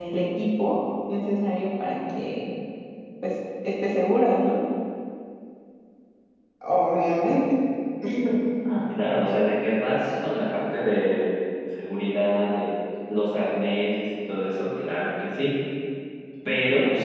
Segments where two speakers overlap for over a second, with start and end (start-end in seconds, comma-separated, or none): none